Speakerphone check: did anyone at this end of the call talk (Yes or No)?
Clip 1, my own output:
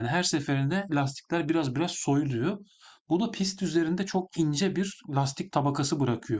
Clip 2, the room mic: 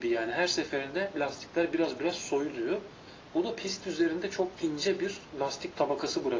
No